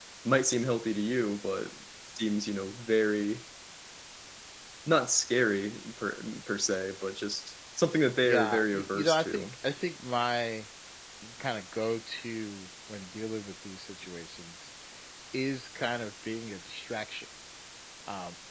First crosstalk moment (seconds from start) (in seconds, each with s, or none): 8.2 s